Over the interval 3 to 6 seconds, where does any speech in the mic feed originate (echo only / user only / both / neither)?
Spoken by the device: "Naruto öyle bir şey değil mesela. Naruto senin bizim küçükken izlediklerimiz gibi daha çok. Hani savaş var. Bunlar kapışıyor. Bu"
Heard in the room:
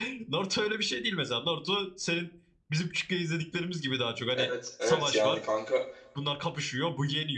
both